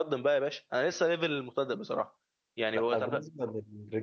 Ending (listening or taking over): taking over